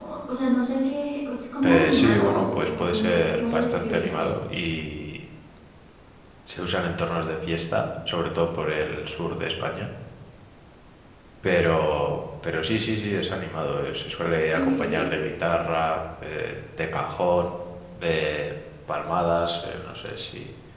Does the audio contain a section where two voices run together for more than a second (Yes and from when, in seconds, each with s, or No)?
Yes, from 1.6 s